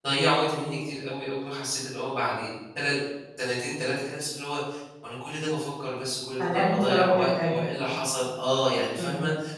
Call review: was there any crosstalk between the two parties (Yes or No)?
Yes